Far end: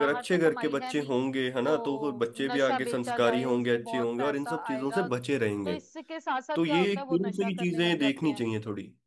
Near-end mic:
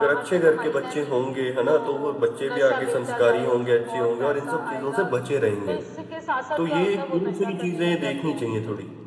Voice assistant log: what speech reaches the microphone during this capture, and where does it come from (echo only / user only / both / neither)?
echo only